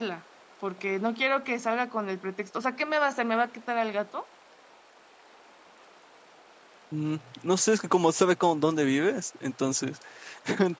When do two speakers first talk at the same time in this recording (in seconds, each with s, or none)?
none